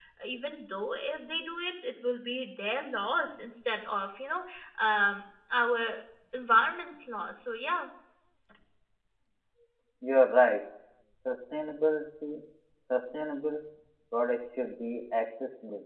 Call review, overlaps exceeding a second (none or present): none